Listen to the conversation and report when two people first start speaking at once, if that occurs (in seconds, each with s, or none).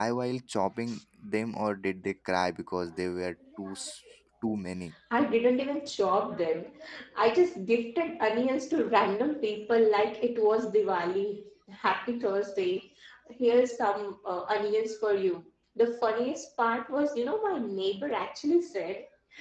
none